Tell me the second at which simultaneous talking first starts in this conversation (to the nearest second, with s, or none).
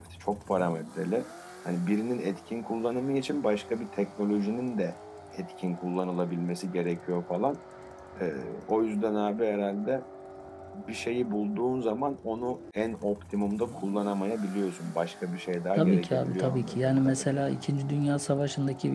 16 s